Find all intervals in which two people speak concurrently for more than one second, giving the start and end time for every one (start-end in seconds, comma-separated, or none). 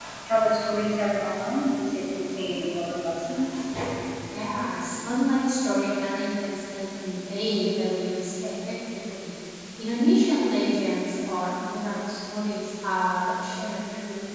none